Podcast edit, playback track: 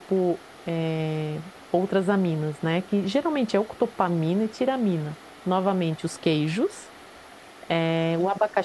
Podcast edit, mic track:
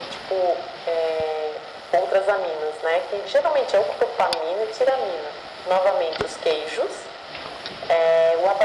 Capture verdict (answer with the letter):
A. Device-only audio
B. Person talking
A